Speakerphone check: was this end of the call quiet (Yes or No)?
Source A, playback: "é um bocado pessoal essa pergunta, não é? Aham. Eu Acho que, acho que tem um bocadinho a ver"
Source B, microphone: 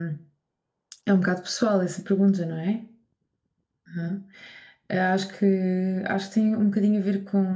Yes